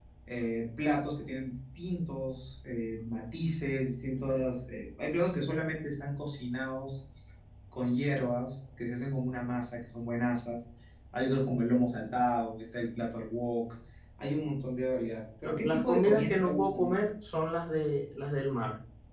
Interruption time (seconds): 15 s

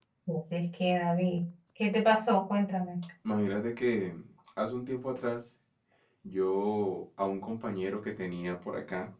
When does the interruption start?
none

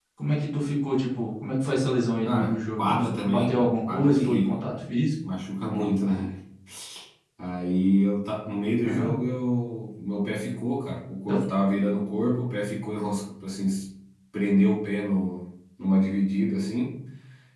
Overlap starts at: 2 s

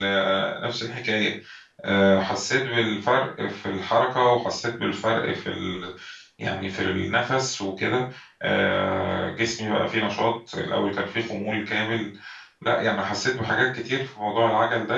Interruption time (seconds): none

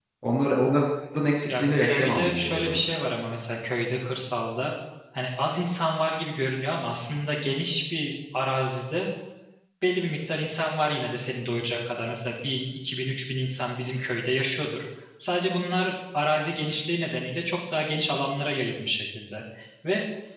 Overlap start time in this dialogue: 1 s

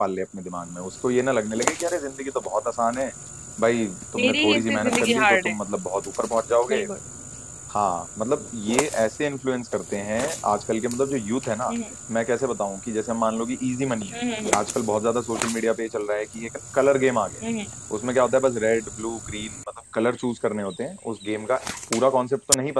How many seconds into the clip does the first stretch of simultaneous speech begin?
4 s

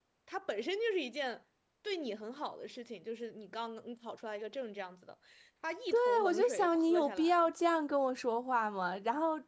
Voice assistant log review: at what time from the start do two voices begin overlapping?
6 s

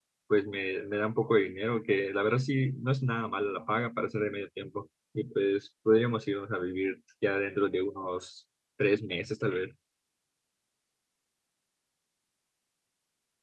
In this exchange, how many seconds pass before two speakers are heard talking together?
none

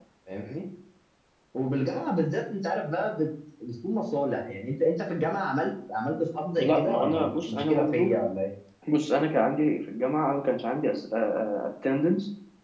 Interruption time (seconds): 7 s

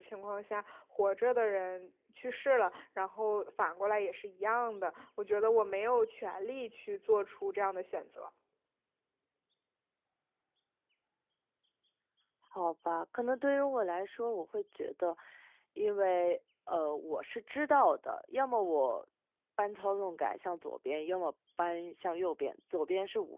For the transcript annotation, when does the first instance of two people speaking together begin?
none

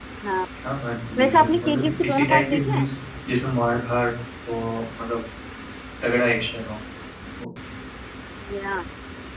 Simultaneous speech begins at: 1 s

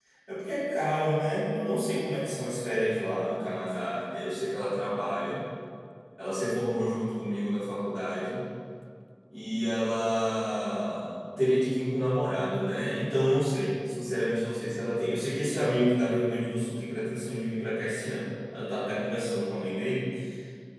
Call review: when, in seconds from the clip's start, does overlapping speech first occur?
none

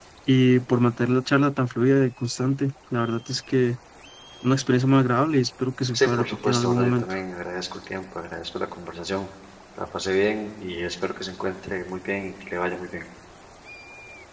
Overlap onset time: 6 s

